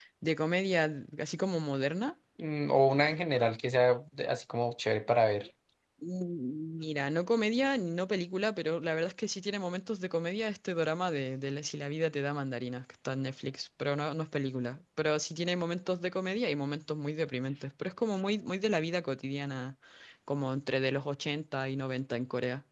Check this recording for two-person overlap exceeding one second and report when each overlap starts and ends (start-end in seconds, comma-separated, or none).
none